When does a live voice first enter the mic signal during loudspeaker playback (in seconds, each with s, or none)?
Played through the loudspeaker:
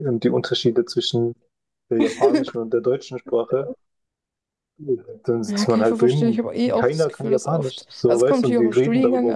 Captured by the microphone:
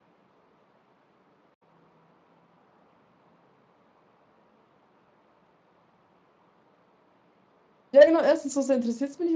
7.9 s